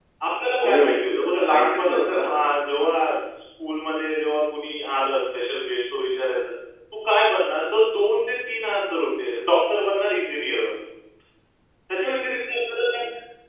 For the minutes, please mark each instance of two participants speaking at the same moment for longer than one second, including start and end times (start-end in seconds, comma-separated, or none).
0.6-2.3